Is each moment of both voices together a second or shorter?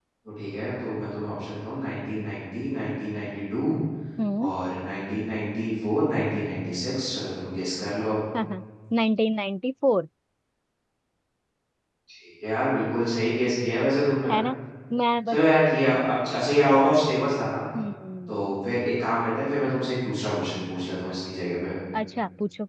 Yes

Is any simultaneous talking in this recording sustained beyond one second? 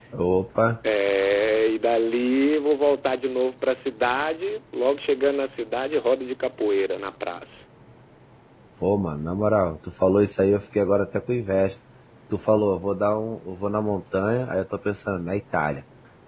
No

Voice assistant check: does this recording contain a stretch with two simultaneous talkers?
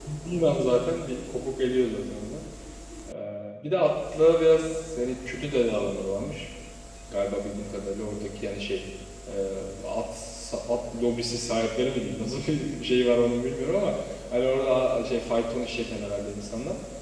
No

